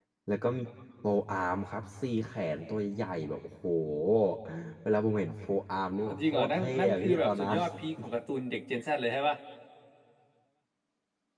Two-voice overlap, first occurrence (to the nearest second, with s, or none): 6 s